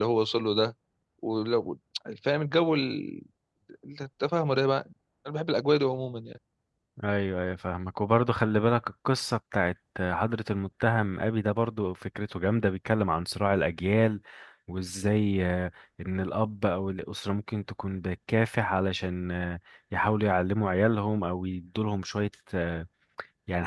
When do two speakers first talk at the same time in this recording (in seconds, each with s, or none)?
none